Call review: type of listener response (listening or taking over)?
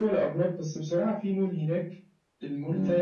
listening